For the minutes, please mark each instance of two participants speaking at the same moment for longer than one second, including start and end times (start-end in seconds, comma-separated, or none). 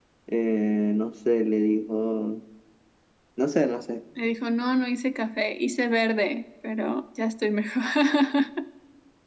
none